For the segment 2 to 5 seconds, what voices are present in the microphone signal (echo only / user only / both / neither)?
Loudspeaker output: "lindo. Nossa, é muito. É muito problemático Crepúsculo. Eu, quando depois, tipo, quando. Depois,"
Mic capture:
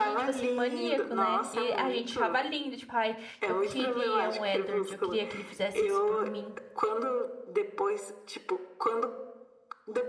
both